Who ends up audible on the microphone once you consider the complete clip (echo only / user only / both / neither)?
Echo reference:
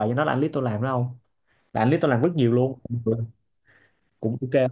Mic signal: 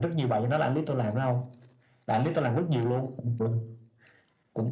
echo only